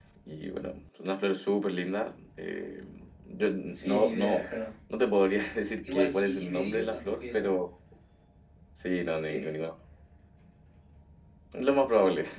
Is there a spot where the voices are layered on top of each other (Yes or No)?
Yes